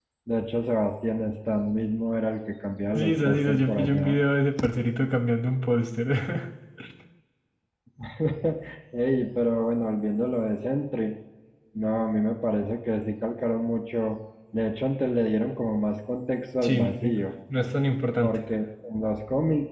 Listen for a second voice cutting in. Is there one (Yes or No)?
Yes